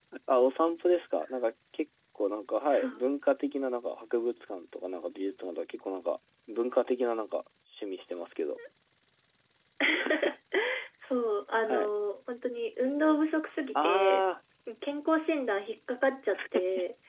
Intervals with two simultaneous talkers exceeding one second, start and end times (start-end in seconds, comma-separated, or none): none